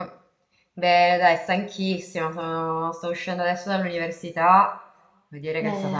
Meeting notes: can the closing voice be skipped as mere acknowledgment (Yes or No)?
Yes